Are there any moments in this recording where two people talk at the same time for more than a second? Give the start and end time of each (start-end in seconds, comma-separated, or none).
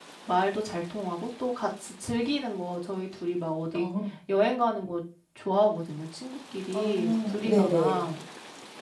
6.7-8.0